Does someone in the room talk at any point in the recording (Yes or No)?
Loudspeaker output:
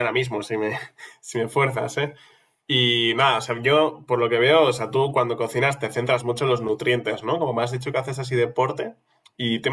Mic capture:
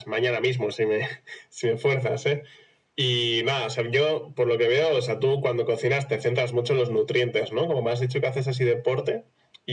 No